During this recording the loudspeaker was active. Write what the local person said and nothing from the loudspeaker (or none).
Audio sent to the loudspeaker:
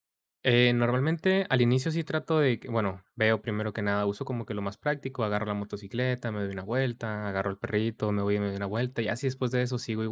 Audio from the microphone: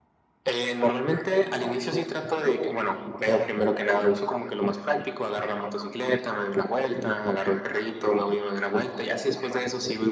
Claro.